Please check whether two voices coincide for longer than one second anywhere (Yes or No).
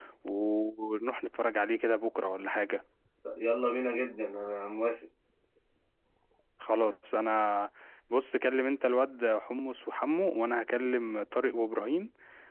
No